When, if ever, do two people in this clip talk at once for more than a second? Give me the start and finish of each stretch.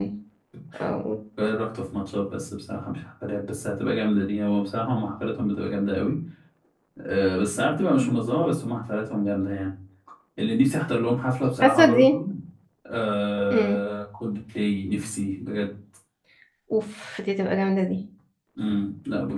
none

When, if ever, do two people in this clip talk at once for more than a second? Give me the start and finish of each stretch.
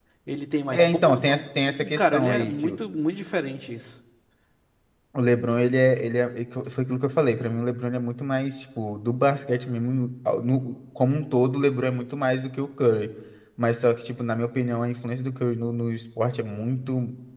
0.7-2.7

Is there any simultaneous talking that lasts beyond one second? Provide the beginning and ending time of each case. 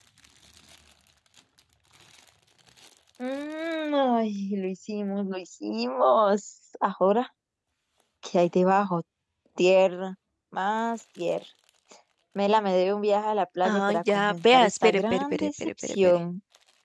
13.6-16.2

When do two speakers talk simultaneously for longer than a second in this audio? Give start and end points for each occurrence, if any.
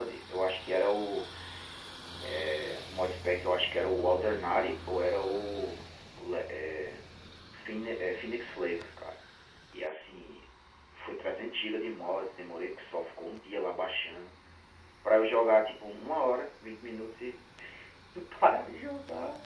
none

